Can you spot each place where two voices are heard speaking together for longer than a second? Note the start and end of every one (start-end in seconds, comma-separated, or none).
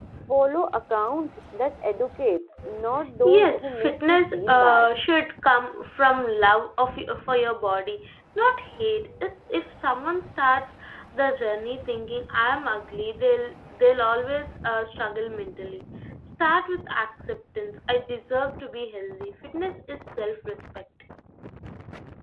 3.2-4.9